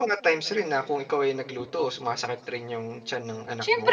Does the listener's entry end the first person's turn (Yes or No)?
Yes